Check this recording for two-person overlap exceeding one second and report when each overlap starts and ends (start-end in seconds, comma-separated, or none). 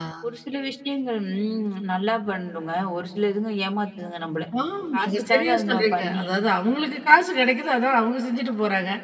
5.0-6.2